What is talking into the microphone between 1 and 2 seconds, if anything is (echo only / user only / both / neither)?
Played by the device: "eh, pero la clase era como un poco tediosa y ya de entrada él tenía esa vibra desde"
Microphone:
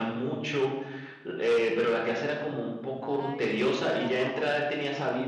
echo only